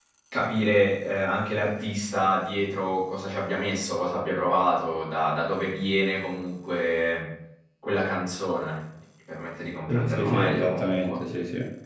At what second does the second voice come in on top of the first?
10 s

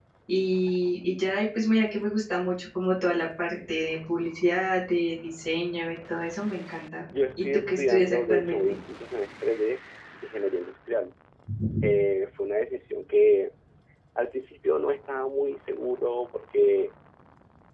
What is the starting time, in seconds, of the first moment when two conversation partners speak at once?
7 s

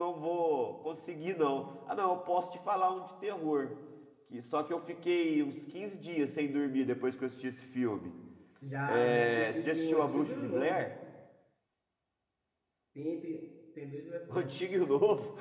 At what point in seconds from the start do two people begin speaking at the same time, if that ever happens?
9 s

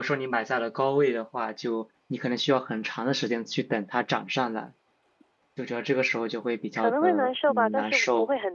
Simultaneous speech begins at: 7 s

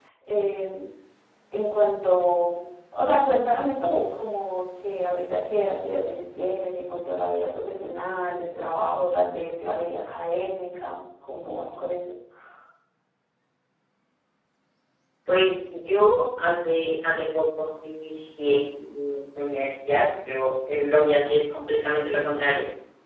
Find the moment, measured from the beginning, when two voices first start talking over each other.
none

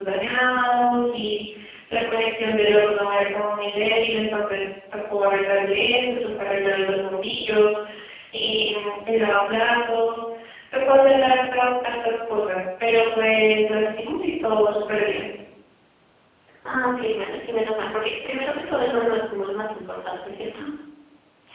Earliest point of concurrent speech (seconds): none

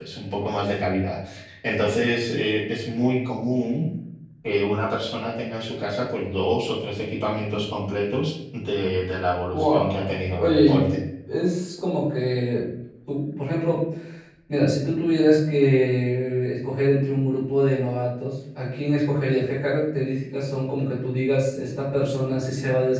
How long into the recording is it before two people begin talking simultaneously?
10 s

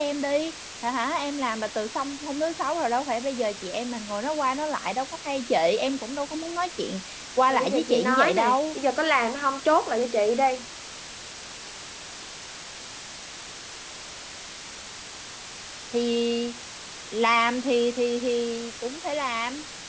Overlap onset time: 7 s

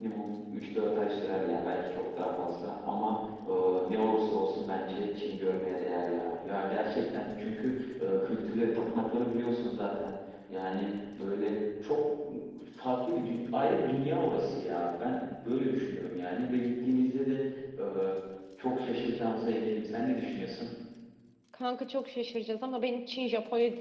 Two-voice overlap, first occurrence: none

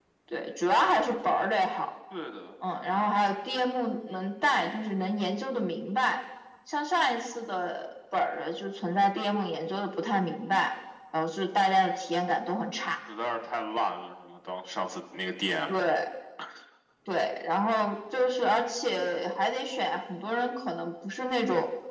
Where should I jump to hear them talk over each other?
none

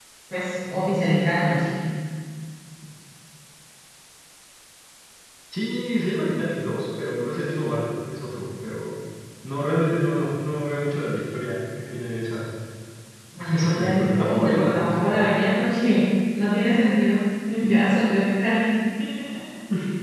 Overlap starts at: 14 s

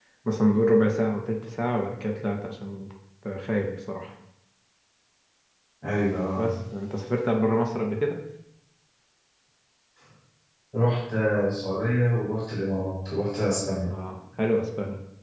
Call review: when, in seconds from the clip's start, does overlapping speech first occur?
none

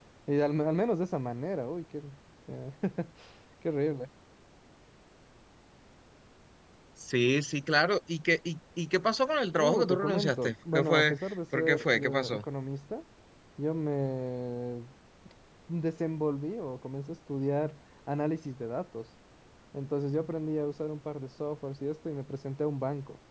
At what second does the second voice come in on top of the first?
10 s

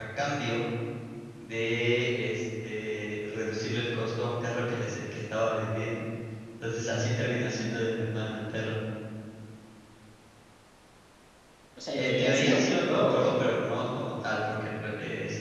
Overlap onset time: 12 s

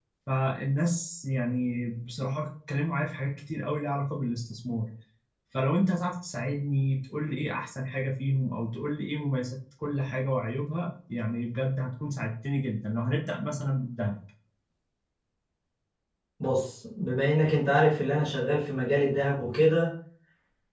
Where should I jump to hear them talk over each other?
none

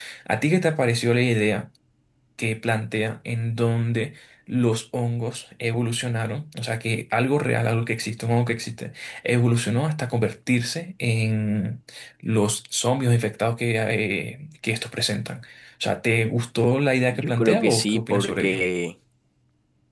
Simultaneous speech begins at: 17 s

